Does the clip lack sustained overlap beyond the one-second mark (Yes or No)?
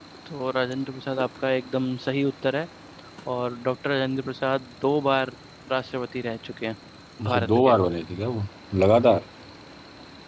Yes